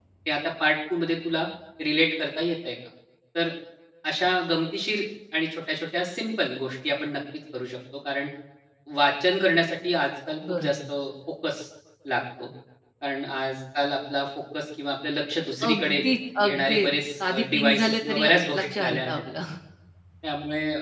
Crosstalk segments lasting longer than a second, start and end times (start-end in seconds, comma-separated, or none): 16.4-19.2